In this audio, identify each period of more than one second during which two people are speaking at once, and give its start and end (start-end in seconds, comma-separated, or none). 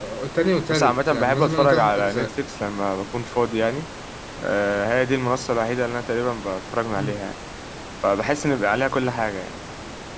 0.7-2.3